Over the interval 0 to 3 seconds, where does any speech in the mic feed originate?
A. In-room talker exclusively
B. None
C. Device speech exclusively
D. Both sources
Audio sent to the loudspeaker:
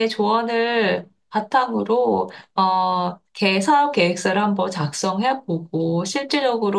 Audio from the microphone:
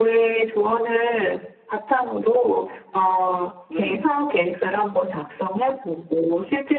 C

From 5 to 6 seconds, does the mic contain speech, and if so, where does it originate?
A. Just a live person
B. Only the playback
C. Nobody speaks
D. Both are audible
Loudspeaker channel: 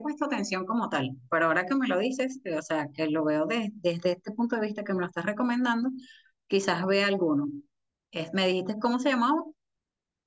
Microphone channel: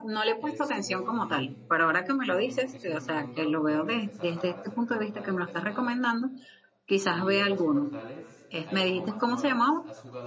D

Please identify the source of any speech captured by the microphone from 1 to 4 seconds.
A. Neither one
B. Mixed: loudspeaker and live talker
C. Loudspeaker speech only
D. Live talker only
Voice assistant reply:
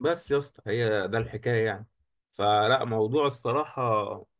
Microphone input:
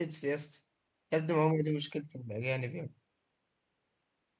D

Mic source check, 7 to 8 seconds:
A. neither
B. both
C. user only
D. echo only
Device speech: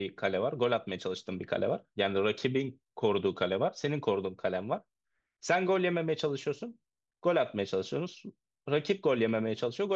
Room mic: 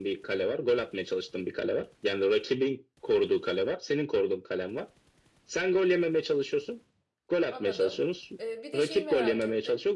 B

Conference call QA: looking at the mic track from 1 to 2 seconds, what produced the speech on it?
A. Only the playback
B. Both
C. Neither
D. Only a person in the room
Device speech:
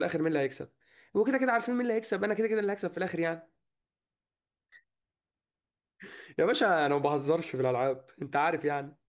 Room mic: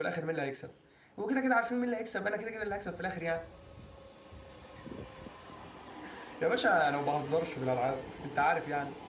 A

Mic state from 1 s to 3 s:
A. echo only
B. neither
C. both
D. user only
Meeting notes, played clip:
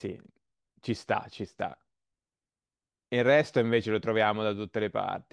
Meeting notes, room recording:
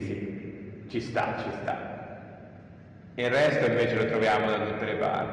A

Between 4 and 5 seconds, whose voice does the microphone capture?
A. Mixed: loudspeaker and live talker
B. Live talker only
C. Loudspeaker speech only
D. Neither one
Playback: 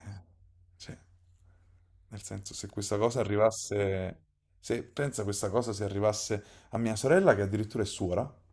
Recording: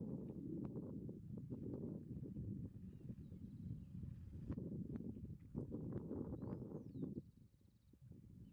D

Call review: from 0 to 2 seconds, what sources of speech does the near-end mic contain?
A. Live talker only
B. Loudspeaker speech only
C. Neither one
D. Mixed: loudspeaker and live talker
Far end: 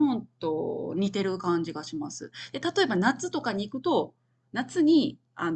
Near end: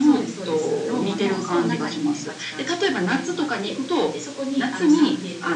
D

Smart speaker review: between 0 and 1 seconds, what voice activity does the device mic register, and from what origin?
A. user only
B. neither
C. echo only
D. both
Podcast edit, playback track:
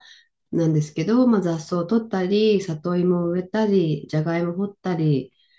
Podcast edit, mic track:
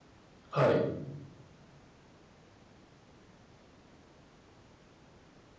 A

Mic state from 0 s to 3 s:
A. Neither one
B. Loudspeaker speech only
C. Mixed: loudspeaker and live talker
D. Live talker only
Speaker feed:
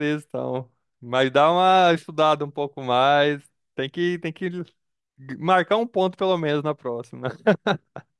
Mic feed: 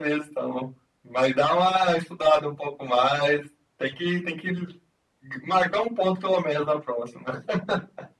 B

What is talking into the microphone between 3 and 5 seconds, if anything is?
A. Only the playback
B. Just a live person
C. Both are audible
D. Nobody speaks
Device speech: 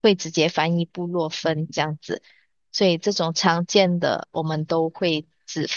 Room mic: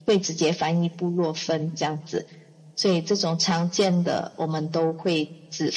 A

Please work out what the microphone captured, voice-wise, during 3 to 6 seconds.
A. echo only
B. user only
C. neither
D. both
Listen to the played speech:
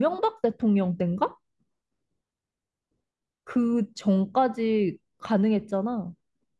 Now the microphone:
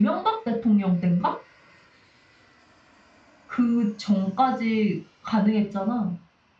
A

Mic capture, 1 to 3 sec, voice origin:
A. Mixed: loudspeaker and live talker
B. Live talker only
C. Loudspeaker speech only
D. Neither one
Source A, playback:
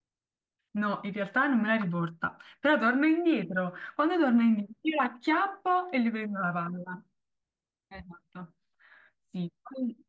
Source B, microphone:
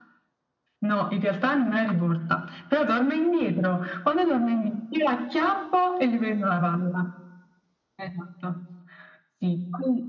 C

